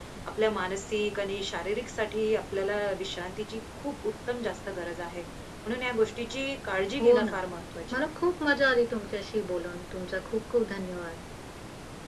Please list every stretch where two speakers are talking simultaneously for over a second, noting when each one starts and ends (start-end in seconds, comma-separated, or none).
none